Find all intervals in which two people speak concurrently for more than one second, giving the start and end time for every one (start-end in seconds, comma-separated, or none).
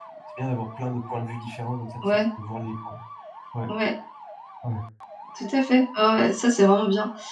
none